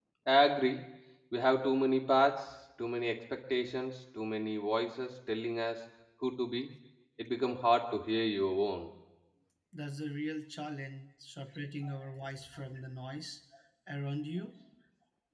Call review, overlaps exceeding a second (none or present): none